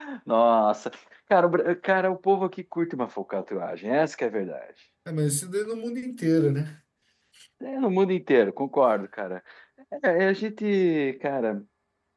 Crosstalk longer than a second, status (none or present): none